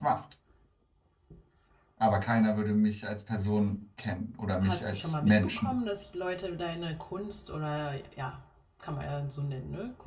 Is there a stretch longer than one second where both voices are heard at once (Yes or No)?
Yes